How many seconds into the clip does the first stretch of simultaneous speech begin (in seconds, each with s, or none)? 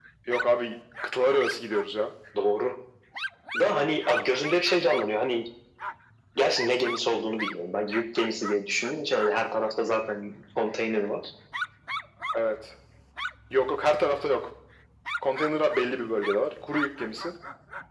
none